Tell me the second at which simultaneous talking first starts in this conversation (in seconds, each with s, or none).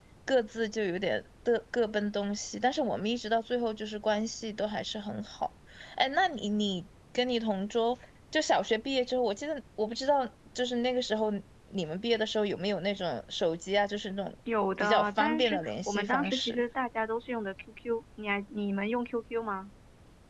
14.8 s